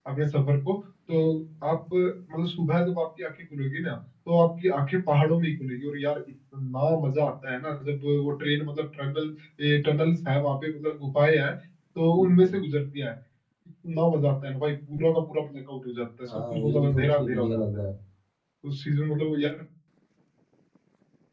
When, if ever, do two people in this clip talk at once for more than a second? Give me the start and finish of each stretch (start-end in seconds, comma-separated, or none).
16.5-17.8